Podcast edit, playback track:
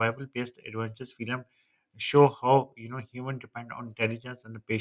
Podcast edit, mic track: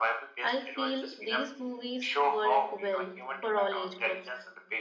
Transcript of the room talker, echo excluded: I feel these movies work well for all age groups

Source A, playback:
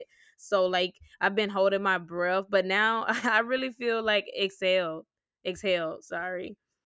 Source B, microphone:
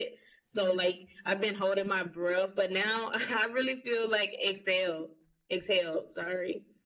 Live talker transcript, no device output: Yeah,

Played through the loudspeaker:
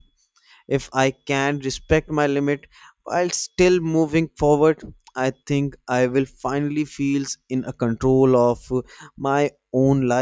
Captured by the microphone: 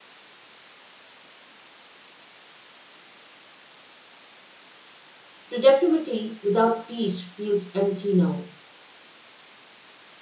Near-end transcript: Productivity without peace feels empty now.

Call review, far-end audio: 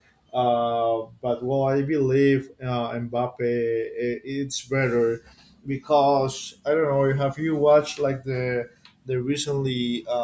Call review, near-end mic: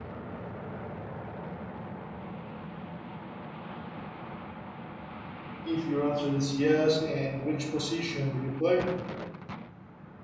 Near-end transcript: if your answer is yes, in which position do you play?

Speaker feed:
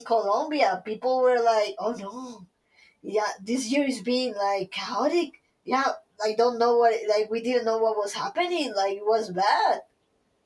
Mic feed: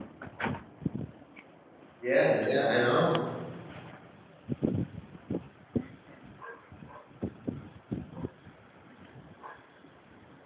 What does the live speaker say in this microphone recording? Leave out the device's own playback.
Yeah, yeah, I know.

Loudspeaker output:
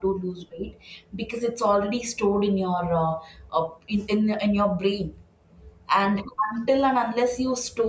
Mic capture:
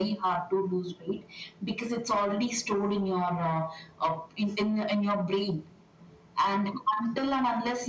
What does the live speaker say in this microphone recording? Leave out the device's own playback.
none

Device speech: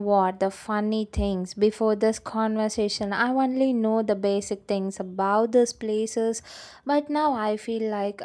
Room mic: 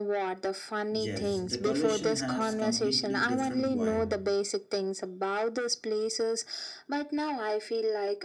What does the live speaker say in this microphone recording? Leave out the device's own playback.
Yes, the coalition has completely different vibe.

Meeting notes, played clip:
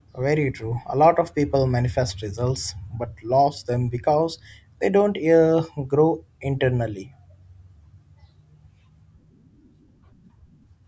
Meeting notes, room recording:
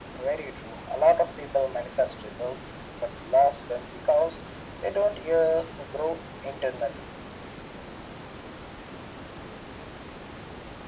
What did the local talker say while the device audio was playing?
none

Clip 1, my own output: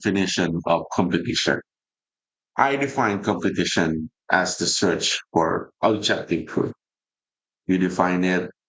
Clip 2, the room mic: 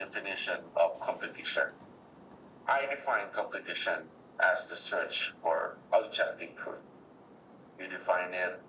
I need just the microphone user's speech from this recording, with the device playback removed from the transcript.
none

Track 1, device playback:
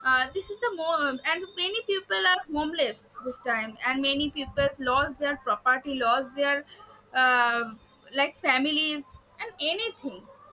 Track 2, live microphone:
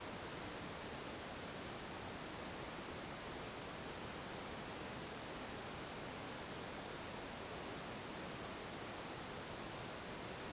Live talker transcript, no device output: none

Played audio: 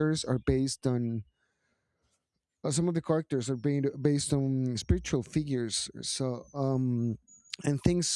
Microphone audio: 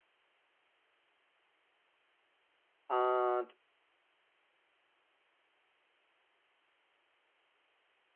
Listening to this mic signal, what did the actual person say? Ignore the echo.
and

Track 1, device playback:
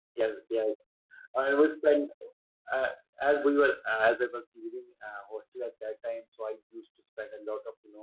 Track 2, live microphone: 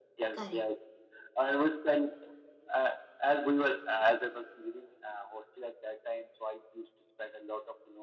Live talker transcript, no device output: Correct.

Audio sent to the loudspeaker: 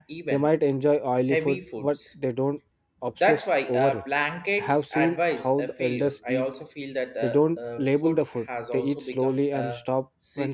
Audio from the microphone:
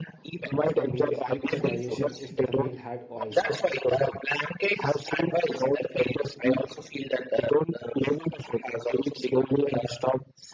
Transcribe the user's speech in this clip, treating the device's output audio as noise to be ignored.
after meals help the digestion if the meal had oil

